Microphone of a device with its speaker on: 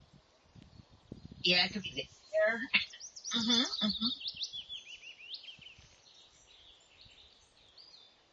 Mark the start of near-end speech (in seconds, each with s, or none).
1.4 s